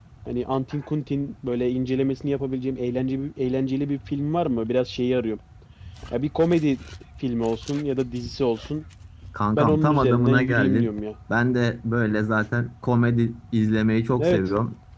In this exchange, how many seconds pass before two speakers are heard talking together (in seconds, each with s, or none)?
9.5 s